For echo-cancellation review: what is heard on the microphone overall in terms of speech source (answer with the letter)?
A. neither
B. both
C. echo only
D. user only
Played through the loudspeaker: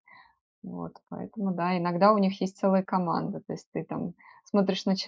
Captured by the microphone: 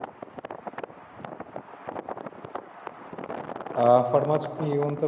D